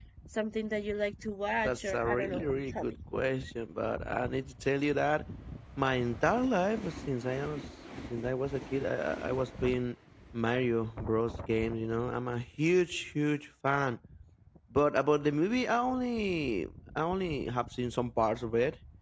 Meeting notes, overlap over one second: present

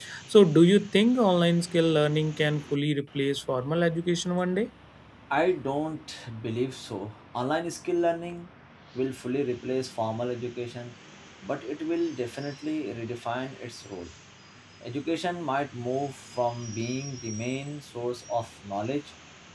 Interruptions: none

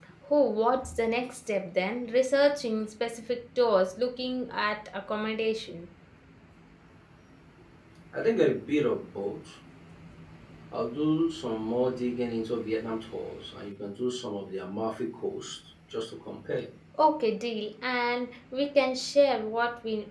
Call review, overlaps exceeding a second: none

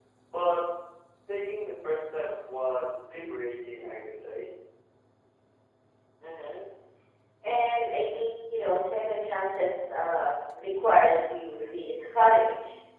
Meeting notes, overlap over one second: none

